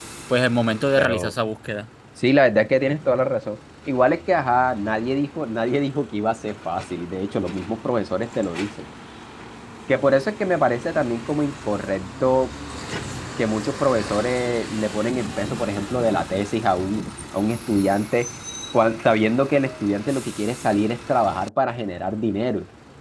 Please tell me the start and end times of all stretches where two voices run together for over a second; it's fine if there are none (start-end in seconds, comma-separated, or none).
none